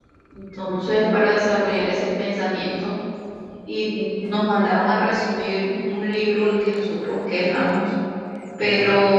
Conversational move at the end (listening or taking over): listening